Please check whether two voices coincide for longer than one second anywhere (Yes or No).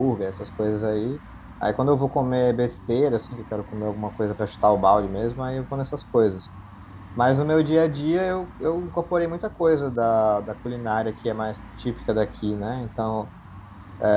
No